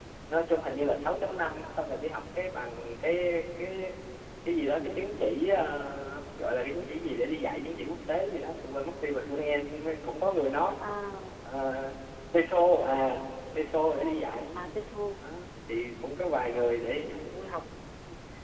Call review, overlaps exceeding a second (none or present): none